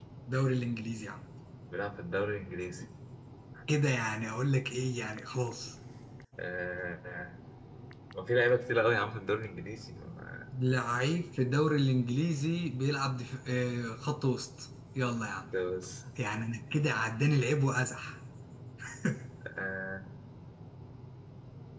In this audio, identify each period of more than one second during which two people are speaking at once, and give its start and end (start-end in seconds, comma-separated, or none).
none